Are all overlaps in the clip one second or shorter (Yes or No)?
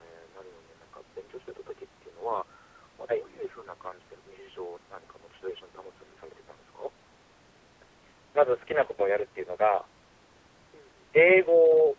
Yes